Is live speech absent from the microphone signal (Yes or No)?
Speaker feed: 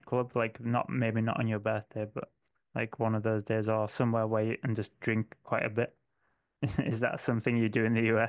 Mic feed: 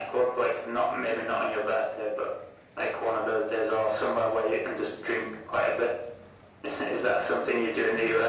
Yes